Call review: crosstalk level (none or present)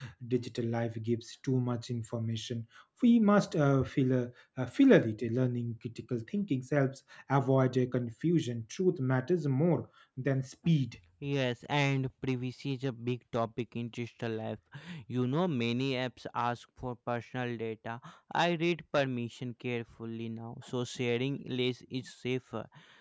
none